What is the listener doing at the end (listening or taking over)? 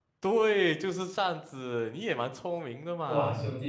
taking over